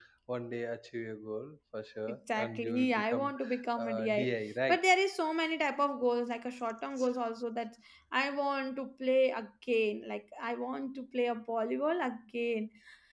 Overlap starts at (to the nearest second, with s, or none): 2 s